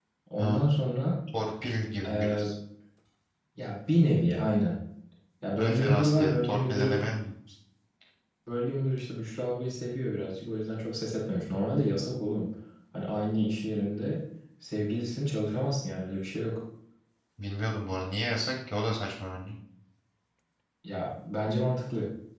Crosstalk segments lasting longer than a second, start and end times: 5.6-7.0

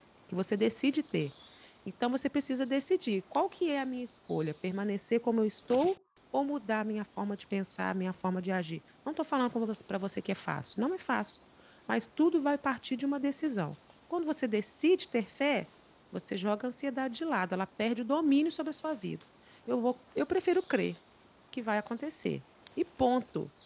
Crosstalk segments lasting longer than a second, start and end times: none

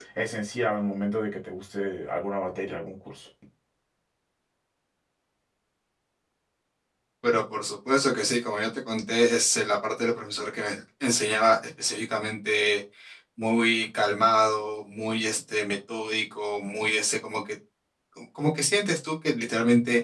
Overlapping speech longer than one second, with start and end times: none

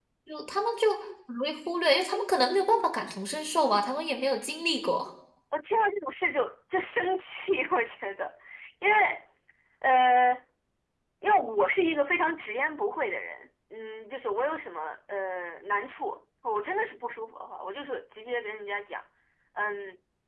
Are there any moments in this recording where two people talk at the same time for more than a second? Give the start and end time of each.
none

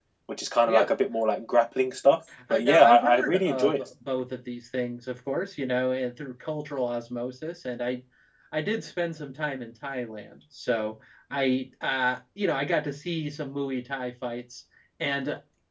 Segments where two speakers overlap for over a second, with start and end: 2.5-3.8

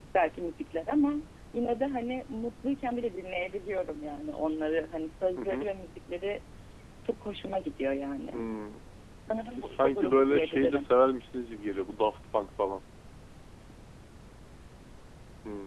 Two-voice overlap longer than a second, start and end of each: 9.5-10.9

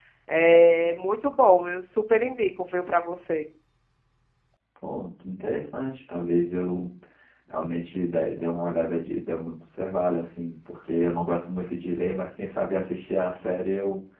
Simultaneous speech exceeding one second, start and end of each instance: none

